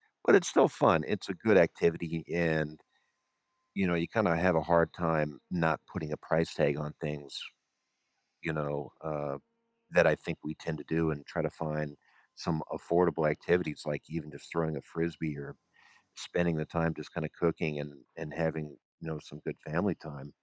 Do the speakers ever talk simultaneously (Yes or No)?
No